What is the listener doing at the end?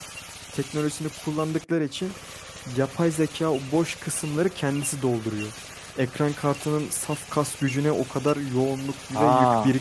taking over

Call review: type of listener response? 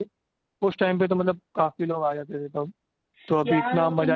taking over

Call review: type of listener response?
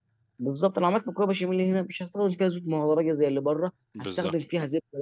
listening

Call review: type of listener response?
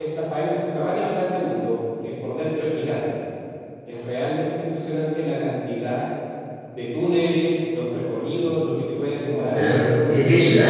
taking over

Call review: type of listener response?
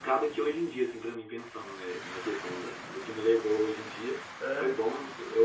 listening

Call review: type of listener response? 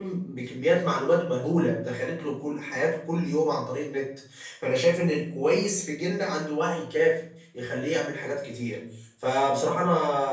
listening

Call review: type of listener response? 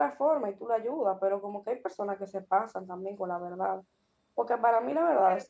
listening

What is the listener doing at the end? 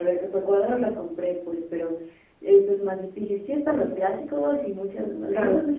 listening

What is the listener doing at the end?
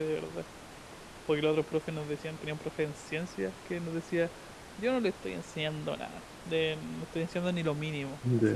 listening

